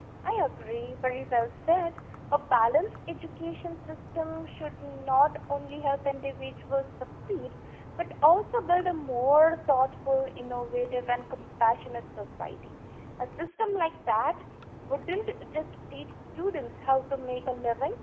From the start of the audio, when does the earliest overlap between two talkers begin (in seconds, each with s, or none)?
none